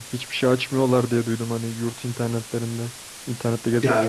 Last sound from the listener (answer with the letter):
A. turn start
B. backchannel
A